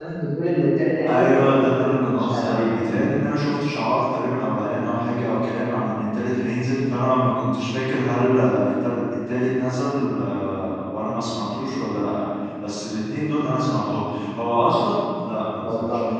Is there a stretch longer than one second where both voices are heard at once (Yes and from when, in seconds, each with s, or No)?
Yes, from 1.1 s